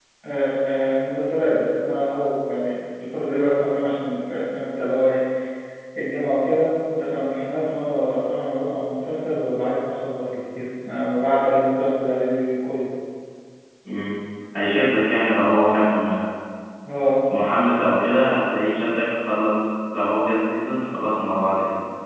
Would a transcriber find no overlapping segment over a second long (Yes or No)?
Yes